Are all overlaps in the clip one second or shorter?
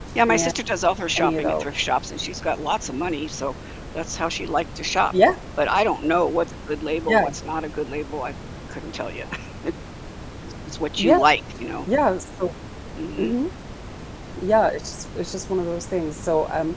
Yes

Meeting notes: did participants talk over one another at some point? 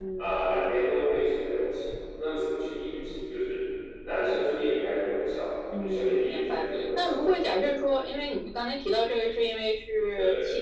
Yes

